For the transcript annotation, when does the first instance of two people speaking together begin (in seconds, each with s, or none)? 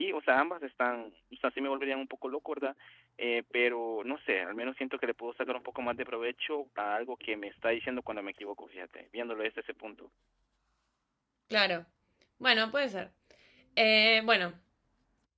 none